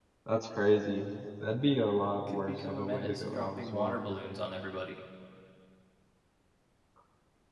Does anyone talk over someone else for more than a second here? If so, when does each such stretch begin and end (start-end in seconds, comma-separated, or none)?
2.3-4.0